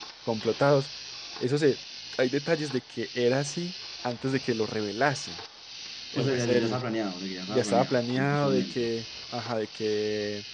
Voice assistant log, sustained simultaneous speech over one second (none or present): present